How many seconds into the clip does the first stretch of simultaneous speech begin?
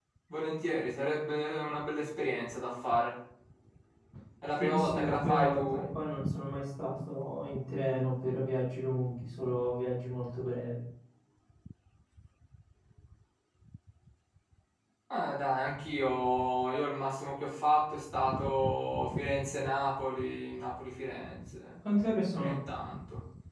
4.6 s

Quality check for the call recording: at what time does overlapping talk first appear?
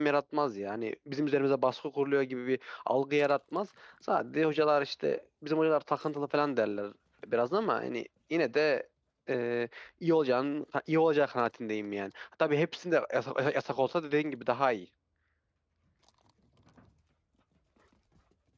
none

